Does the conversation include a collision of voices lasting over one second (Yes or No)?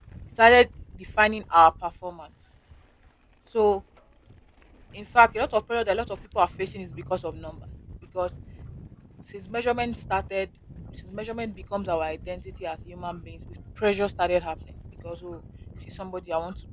No